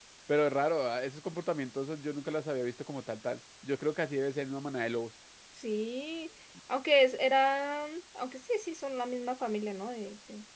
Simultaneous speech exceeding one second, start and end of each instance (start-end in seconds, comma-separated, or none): none